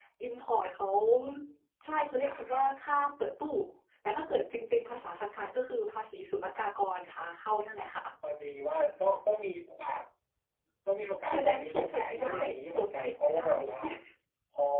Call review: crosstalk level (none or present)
present